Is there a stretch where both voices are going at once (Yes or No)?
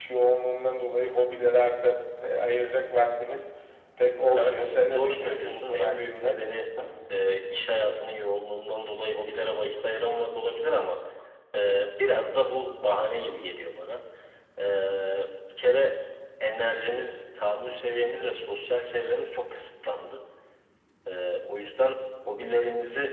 Yes